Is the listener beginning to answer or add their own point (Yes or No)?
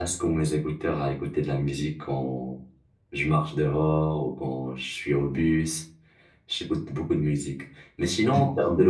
No